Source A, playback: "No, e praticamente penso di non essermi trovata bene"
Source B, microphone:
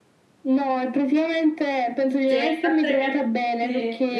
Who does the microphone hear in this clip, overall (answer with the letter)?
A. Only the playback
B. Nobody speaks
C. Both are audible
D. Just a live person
C